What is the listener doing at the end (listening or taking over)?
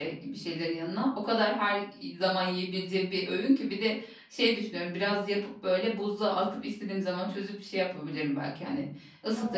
listening